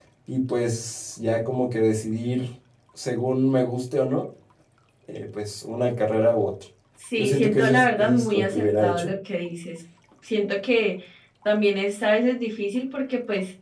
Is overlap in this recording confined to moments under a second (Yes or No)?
No